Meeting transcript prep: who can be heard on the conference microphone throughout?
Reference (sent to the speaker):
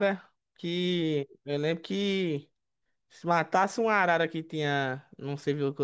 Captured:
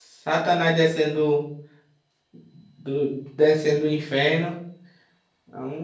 user only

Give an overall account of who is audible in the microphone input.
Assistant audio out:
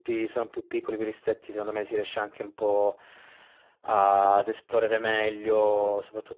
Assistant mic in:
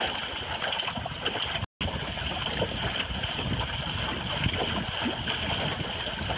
neither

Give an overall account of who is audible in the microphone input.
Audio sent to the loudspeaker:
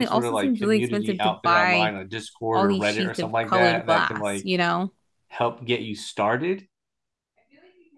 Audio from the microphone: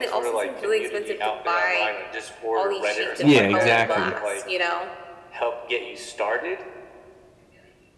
both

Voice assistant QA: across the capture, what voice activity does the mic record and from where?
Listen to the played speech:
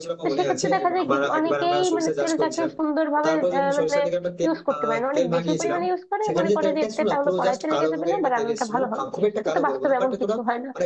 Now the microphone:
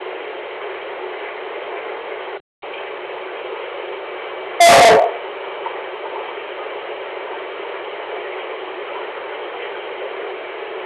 user only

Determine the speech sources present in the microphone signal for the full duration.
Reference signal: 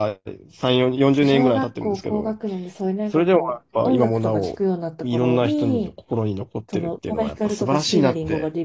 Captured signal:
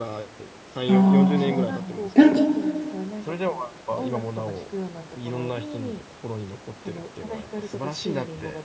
both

